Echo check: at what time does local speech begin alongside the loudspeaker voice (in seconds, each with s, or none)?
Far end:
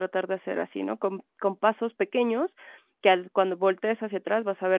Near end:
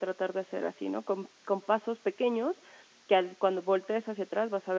none